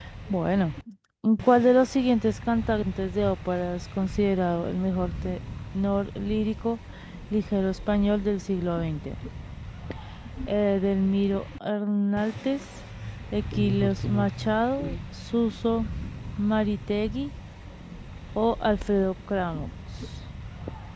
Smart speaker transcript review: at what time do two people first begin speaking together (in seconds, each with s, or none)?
13.5 s